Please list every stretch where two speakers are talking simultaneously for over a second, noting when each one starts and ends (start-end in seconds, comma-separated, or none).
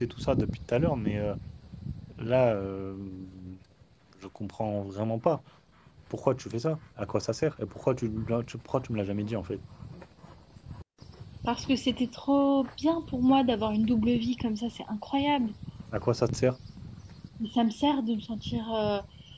none